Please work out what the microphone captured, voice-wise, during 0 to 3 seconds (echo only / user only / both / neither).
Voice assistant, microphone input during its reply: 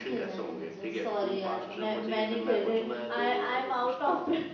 both